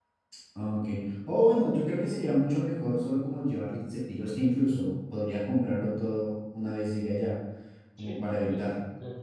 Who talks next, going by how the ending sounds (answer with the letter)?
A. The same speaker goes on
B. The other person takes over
B